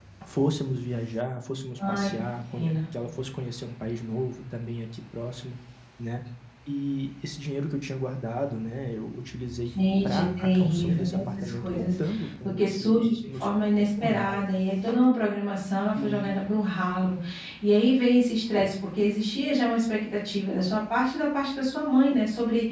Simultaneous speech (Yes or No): Yes